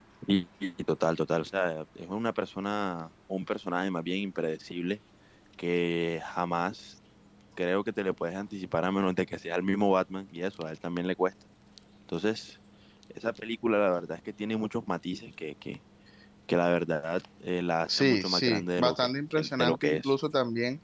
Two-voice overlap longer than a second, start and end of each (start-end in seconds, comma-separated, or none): 17.9-20.1